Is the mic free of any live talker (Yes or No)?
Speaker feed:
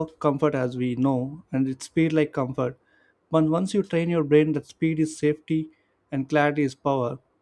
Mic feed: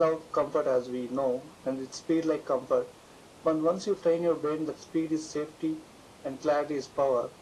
Yes